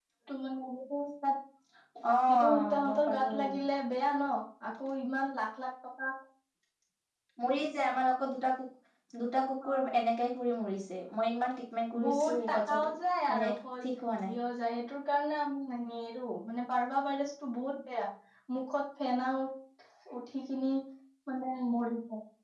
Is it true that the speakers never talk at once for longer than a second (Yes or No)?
No